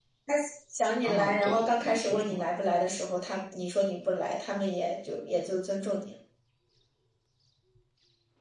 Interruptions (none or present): present